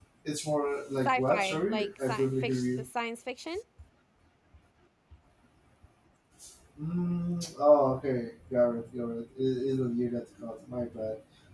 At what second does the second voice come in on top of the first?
1 s

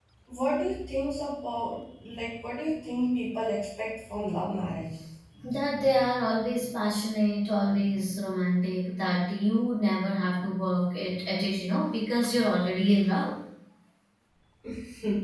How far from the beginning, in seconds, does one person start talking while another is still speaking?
none

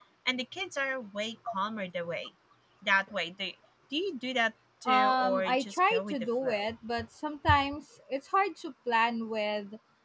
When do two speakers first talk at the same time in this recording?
5 s

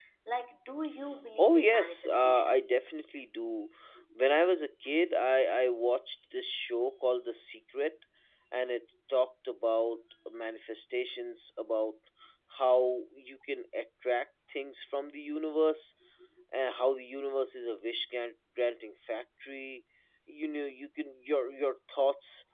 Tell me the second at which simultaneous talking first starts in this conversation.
1 s

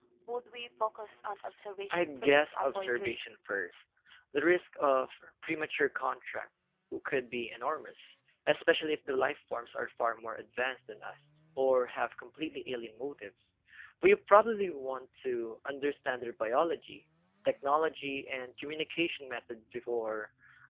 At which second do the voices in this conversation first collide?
2 s

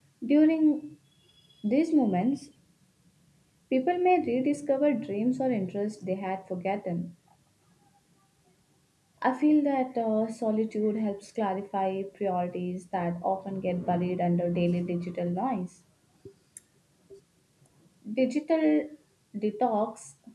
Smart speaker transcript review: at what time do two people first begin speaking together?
none

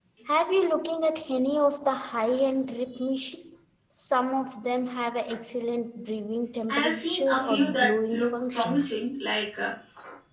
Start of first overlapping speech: 7 s

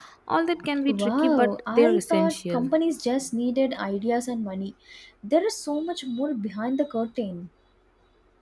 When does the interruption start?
1 s

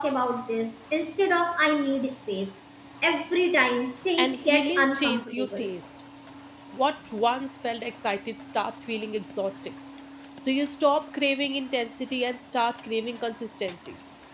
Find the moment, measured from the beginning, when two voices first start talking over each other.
4 s

